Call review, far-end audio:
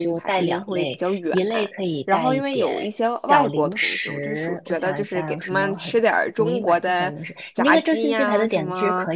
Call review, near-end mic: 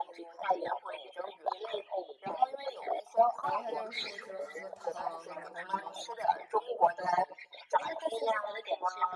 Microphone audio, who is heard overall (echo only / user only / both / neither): both